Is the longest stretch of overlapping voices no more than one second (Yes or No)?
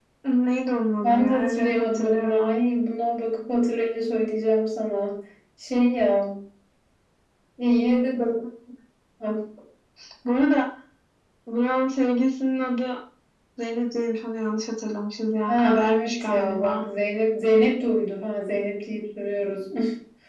No